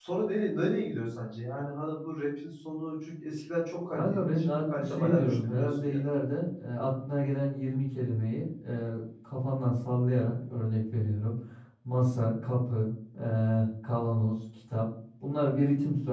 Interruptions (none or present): present